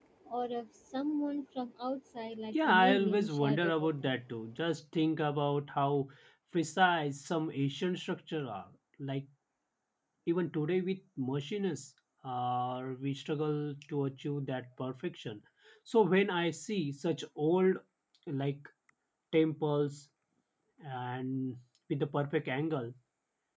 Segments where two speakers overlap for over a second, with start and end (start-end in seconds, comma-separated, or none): 2.5-4.2